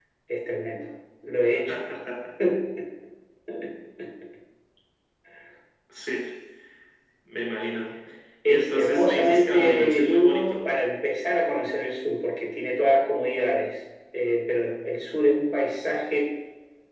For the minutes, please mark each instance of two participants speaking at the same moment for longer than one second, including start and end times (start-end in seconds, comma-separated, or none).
8.4-10.6